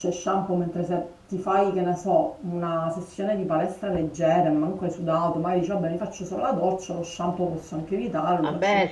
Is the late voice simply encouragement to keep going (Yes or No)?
No